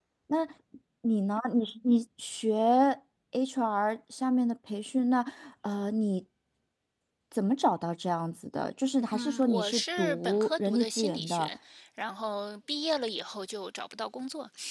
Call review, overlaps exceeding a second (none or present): present